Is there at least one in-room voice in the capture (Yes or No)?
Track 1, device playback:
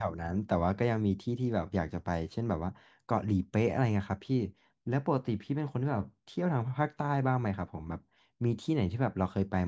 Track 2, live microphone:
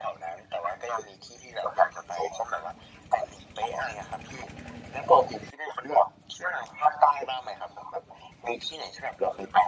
No